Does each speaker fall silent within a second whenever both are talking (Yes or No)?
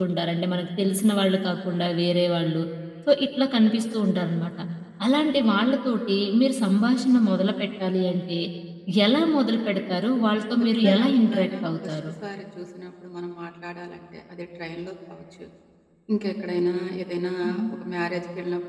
No